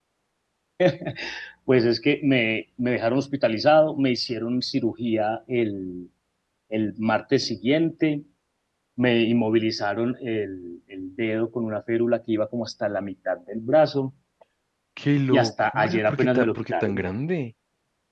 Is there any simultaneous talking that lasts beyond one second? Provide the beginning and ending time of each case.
15.3-17.0

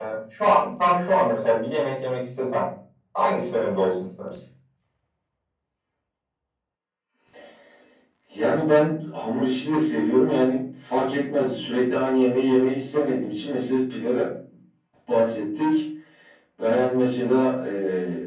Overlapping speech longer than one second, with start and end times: none

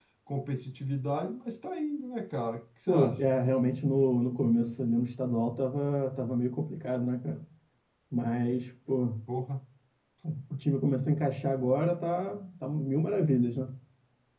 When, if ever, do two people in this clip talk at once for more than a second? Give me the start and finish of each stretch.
none

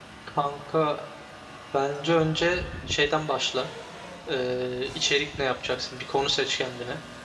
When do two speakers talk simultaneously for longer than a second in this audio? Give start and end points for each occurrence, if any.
none

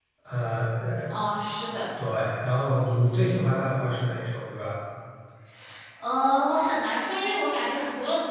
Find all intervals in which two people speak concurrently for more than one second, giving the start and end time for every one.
none

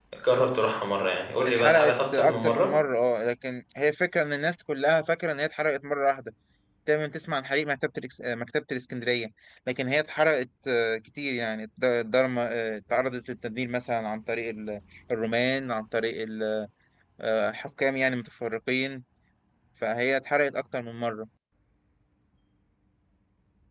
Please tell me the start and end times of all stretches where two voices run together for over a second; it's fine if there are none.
1.5-2.7

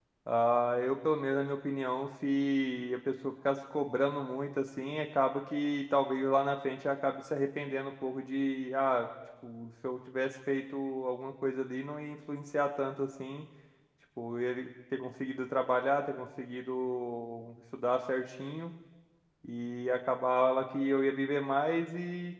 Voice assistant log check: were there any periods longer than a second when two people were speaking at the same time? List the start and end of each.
none

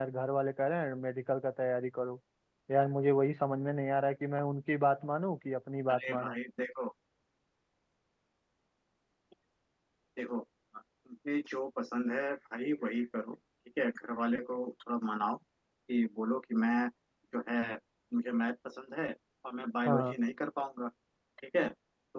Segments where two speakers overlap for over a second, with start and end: none

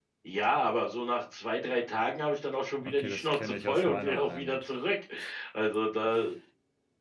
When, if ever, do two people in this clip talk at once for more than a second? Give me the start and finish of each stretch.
2.8-4.7

